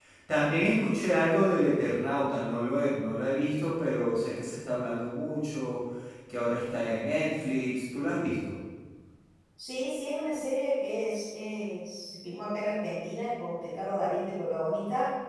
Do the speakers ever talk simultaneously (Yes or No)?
No